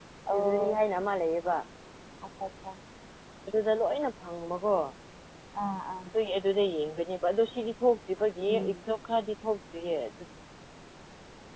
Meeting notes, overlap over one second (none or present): none